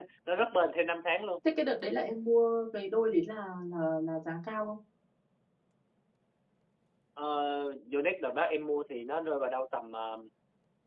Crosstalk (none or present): none